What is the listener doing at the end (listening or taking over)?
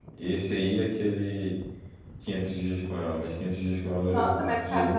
taking over